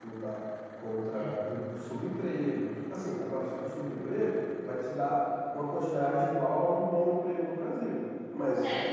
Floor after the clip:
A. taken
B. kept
B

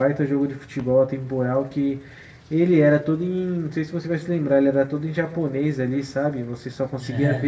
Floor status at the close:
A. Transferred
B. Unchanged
B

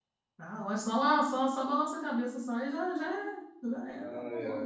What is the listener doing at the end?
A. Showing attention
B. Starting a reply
B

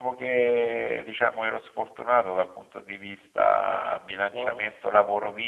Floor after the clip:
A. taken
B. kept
B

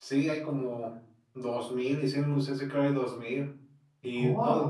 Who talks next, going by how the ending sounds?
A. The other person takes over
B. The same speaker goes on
A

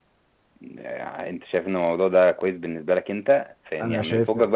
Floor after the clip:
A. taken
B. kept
B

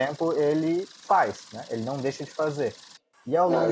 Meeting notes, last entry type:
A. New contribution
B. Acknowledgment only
A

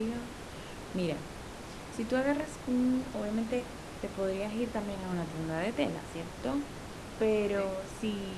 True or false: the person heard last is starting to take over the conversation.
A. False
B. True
A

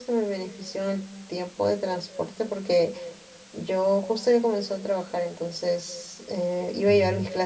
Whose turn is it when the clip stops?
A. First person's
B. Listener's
A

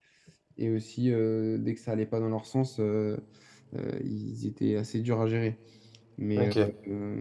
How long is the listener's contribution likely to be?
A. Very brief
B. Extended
A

